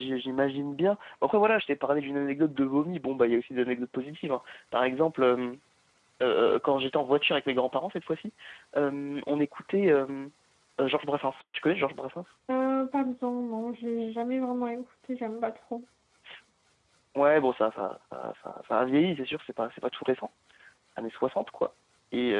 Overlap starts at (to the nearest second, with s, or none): none